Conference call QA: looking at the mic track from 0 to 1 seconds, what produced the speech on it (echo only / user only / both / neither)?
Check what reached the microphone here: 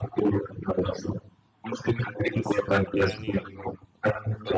echo only